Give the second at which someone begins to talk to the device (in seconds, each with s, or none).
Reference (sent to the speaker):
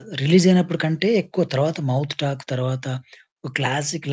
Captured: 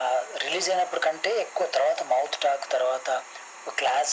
none